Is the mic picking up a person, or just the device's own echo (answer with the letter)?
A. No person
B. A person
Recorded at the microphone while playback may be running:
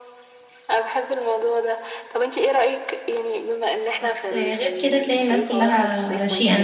B